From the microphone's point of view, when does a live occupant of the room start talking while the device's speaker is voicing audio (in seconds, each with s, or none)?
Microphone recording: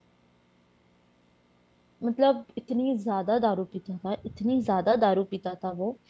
2.0 s